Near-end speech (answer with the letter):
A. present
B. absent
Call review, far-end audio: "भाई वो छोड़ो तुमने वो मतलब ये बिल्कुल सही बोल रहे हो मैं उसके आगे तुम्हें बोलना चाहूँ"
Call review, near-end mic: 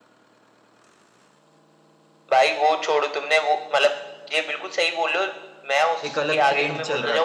A